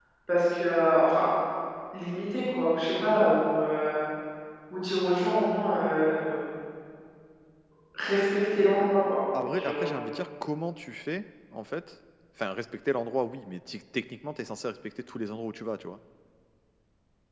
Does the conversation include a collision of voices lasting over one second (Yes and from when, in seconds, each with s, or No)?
No